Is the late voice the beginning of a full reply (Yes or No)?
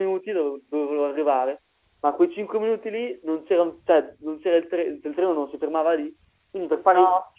No